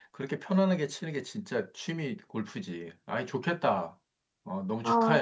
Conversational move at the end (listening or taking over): taking over